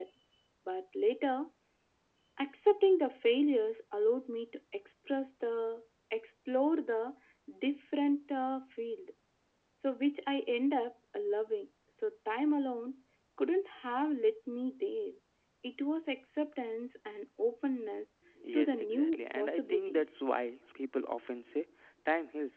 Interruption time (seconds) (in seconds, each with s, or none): 18.5 s